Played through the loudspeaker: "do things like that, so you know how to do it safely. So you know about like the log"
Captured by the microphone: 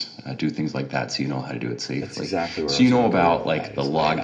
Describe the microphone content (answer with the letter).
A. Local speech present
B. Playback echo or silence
A